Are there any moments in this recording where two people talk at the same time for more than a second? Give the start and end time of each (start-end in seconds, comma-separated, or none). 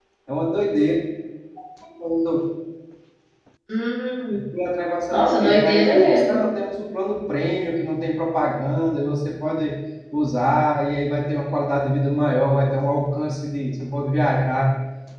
5.1-6.4